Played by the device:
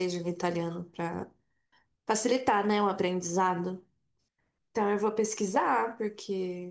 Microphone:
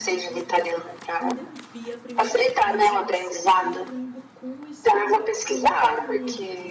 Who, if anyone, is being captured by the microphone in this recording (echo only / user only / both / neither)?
both